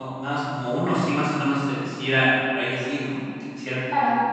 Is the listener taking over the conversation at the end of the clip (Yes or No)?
Yes